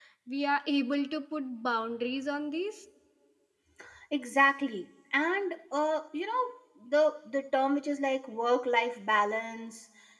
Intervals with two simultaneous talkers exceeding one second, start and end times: none

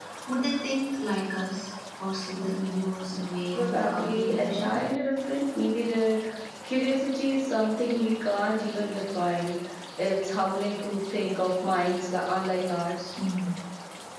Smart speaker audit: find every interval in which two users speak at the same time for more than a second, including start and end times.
3.6-4.8

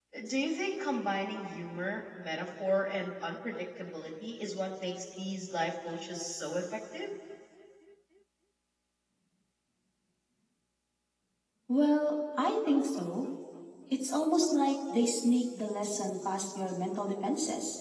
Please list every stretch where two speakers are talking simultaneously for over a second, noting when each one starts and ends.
none

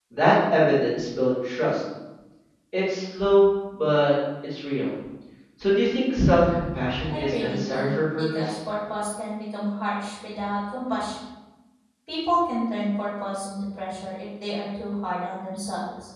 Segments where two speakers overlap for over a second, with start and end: 7.1-8.5

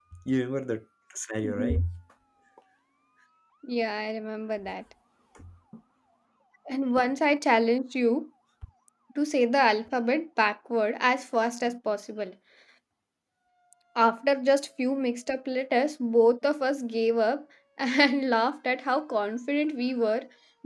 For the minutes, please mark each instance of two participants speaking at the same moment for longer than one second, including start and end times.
none

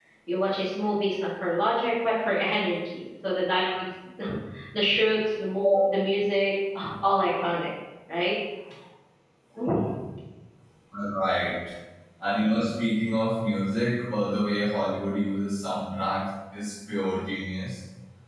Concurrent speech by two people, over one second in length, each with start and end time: none

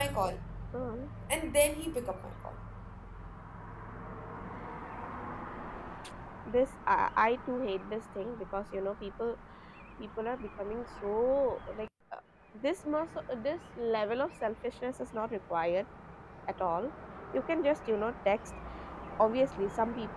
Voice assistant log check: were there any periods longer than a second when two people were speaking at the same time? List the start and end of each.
none

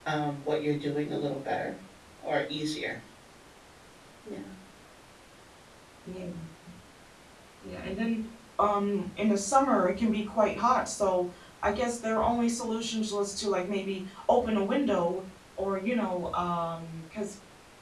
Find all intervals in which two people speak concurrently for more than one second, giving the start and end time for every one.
none

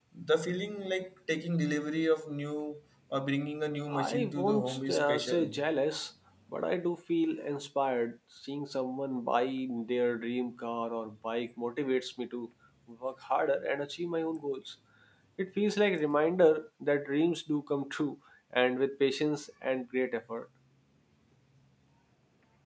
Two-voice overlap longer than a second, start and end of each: 4.1-5.5

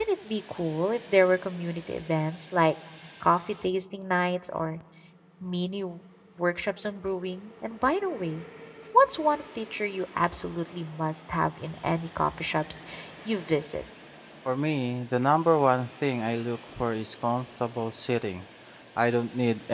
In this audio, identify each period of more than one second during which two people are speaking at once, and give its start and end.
none

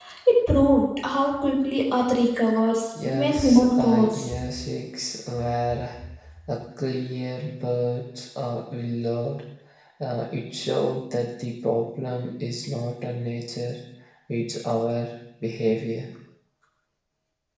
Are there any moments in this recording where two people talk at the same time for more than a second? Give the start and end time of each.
3.0-4.3

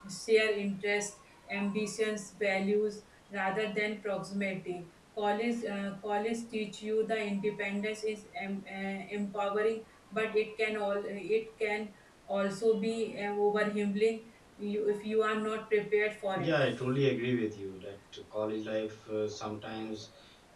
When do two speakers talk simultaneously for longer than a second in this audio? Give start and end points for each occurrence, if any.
none

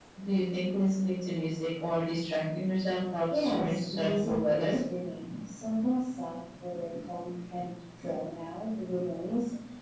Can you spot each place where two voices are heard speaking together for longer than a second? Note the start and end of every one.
3.3-4.8

